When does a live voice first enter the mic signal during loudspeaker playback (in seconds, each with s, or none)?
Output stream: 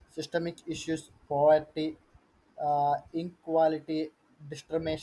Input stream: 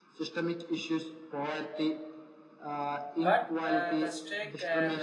3.2 s